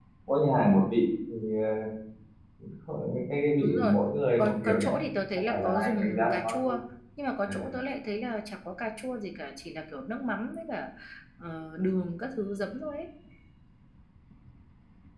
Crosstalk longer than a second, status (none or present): present